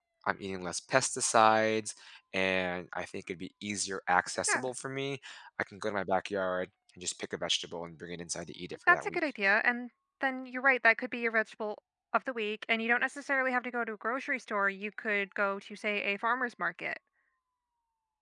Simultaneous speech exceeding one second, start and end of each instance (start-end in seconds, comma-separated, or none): none